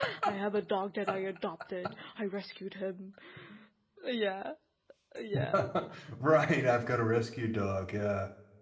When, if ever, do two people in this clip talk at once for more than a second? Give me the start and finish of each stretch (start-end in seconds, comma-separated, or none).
none